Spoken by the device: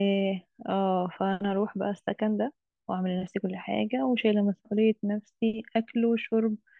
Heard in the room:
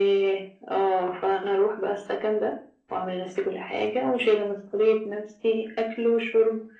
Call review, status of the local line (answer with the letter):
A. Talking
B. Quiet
B